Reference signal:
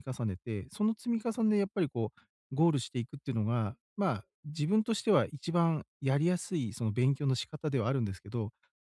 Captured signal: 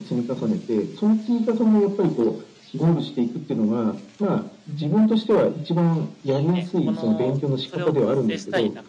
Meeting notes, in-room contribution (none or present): present